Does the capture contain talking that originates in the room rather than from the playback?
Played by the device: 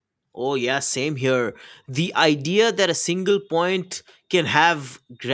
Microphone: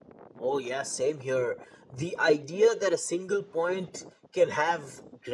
No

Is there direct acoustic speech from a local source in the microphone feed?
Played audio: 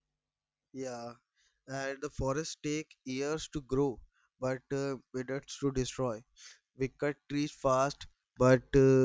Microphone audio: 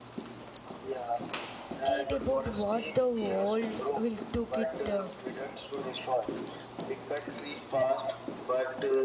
Yes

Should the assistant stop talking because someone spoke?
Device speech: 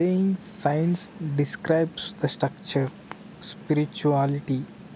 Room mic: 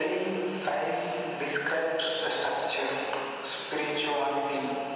No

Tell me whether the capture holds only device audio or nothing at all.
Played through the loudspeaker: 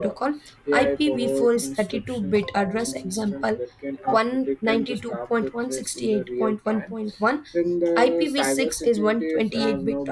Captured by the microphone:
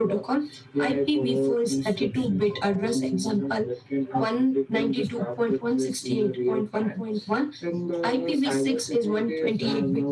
Yes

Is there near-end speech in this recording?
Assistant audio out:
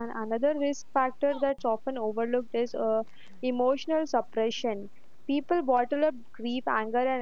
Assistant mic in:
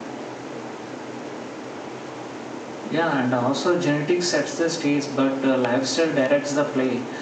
Yes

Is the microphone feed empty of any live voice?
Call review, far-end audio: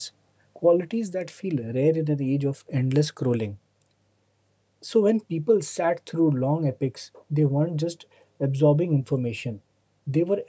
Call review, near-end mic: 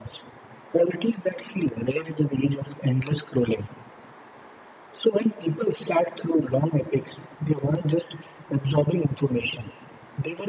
Yes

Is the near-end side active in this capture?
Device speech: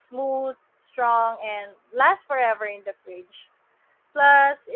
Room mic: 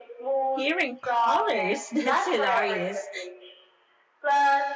Yes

